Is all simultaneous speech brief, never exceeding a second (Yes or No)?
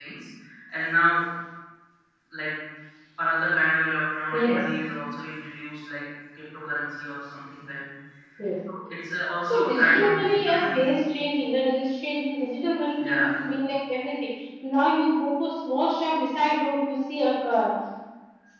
No